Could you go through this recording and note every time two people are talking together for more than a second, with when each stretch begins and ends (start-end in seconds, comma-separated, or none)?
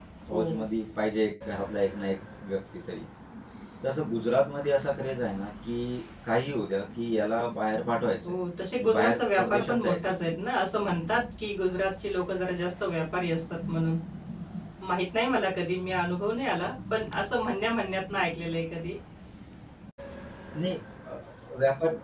8.8-10.2